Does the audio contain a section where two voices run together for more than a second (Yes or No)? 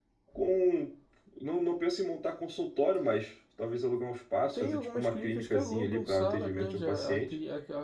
Yes